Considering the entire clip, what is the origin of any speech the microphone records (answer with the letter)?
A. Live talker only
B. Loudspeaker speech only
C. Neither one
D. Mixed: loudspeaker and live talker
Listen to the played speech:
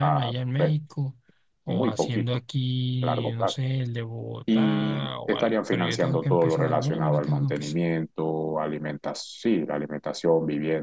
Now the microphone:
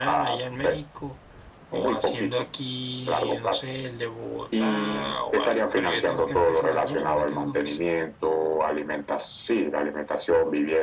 B